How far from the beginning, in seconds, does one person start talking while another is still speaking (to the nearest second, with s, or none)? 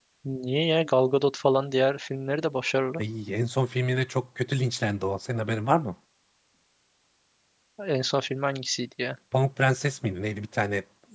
none